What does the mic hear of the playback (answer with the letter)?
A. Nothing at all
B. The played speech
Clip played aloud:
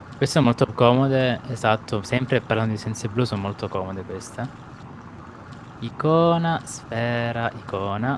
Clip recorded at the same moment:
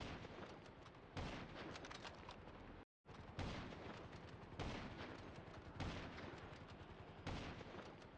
A